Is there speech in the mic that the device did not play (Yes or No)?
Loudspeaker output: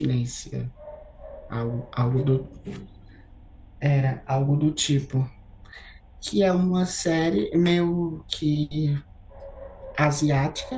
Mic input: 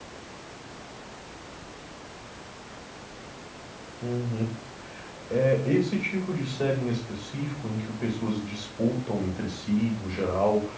Yes